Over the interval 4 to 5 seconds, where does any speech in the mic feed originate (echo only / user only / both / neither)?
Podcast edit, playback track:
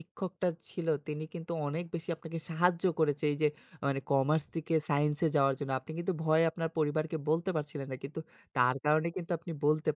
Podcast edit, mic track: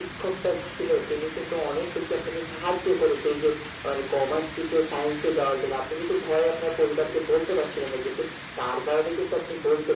echo only